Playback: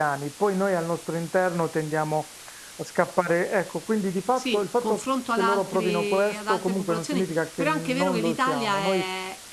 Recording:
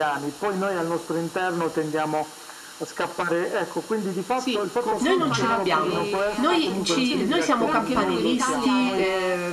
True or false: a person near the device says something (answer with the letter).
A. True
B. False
A